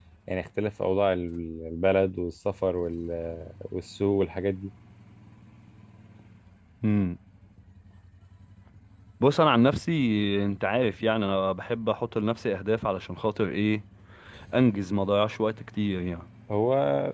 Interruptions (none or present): none